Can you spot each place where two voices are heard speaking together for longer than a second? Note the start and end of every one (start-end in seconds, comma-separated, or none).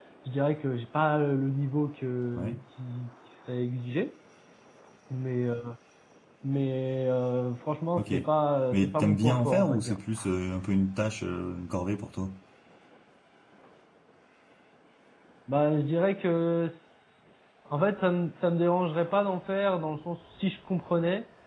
8.7-10.0